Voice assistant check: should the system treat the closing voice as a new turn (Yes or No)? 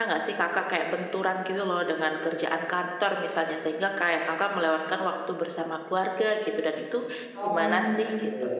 Yes